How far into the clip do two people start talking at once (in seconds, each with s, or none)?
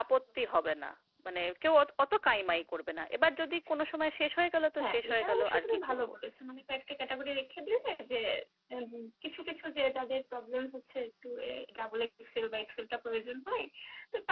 4.8 s